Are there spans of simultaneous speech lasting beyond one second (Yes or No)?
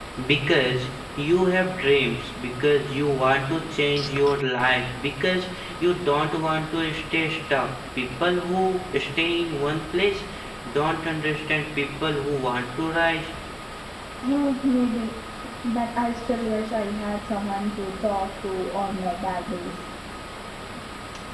No